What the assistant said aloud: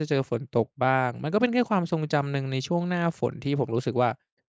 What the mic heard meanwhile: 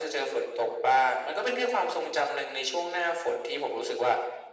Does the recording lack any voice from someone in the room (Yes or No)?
Yes